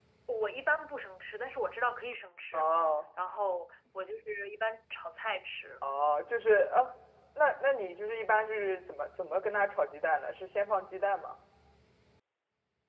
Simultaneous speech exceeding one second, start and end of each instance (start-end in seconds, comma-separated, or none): none